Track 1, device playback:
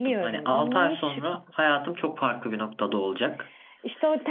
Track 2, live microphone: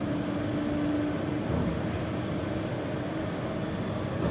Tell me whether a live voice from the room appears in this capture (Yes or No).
No